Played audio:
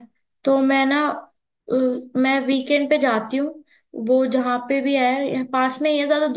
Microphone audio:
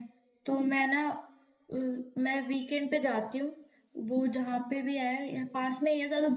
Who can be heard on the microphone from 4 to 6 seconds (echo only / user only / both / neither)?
echo only